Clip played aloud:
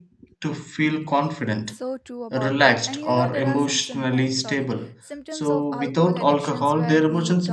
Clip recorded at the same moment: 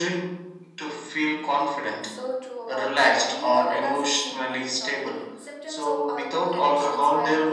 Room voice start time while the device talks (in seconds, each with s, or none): none